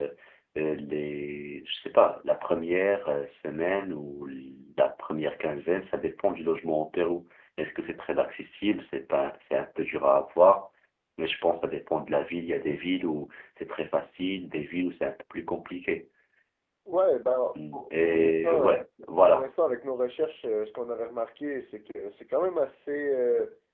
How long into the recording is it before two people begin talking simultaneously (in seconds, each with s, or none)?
17.6 s